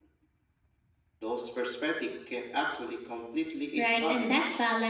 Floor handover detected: Yes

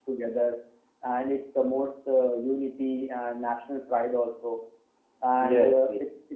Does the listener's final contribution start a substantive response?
No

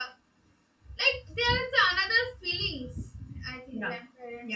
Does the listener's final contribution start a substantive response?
Yes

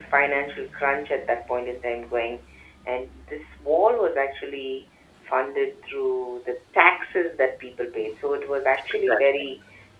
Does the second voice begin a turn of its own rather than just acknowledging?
No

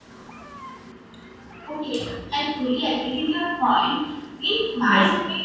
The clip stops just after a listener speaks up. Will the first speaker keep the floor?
Yes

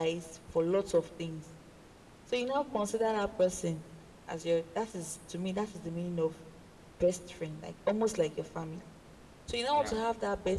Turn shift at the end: No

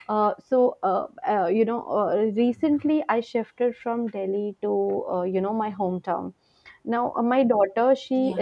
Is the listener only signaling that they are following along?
Yes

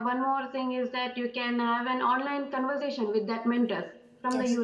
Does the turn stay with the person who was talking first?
Yes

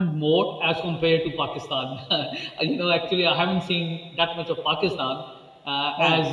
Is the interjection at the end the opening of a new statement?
No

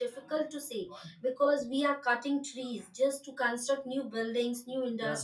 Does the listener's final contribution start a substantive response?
No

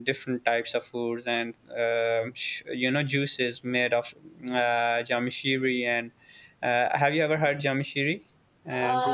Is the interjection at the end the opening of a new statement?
Yes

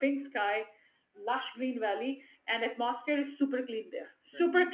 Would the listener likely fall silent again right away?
Yes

